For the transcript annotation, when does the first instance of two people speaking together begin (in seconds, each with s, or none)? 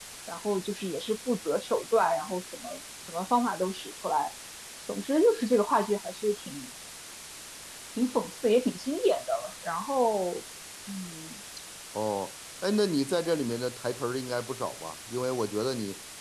none